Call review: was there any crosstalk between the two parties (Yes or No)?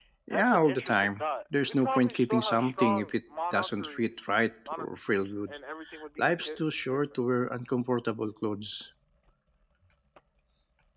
Yes